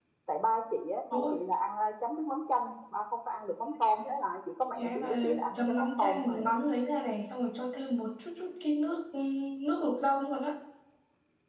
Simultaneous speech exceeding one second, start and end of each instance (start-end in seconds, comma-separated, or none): 4.8-6.4